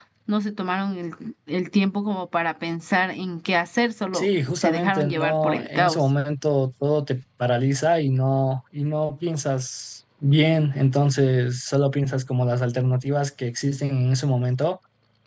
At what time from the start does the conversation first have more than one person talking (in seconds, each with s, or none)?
4.1 s